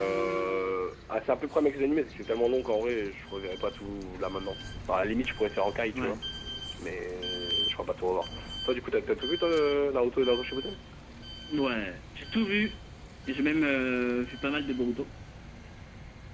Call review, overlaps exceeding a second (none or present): none